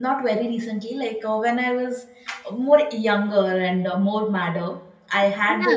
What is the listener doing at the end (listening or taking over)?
listening